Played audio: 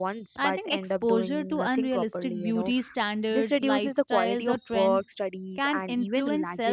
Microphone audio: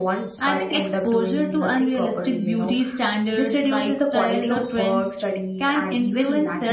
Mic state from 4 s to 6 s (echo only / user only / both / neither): echo only